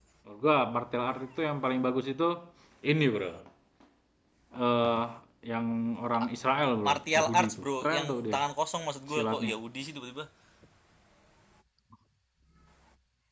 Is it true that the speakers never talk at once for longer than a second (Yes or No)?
No